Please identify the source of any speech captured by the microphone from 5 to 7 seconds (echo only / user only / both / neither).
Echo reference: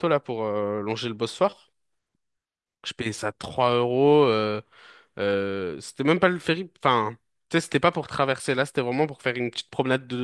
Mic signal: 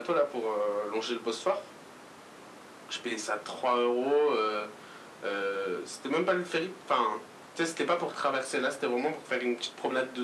echo only